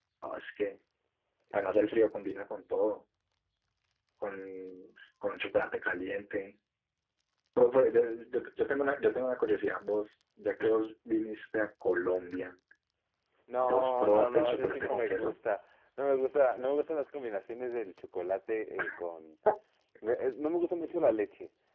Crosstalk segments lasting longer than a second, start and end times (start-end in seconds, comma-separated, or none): 13.6-15.4